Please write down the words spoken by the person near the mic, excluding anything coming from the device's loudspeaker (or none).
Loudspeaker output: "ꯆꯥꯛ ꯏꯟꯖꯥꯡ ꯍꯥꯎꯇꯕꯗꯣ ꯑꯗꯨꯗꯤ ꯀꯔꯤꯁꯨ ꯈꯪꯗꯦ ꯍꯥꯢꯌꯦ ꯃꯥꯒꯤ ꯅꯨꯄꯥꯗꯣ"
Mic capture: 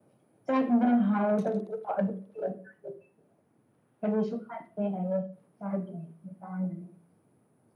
none